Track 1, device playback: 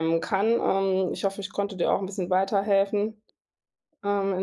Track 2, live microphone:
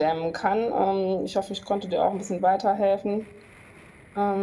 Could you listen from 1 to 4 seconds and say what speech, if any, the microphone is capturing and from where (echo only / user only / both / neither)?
echo only